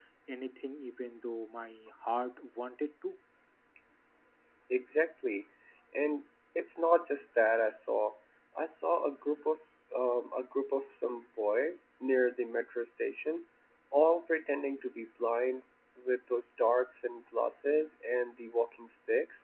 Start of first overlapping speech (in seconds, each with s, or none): none